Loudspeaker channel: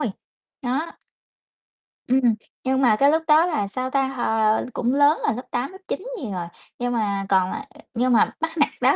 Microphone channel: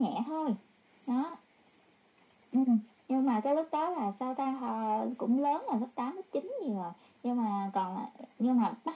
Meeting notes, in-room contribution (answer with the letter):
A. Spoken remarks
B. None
B